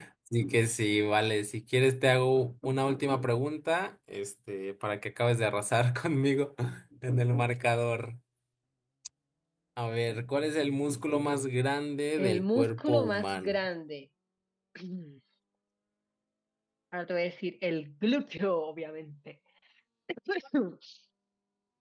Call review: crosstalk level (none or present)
present